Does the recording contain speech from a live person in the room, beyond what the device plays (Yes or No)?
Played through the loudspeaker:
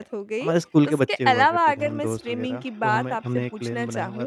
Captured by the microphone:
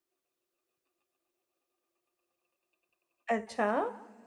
Yes